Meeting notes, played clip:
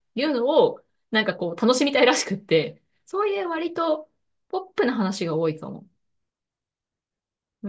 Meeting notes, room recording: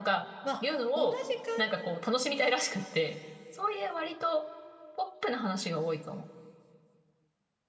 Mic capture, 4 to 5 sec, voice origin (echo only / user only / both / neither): echo only